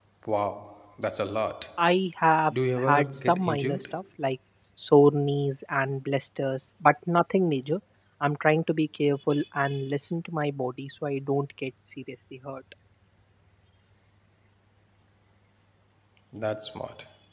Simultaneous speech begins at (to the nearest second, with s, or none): 3 s